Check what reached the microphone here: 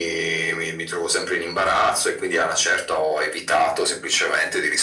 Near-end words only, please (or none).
none